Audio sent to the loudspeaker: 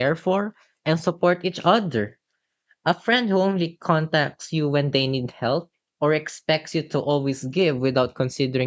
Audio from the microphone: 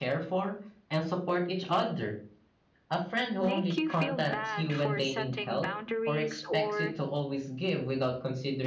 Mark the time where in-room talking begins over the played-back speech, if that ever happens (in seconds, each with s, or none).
3.4 s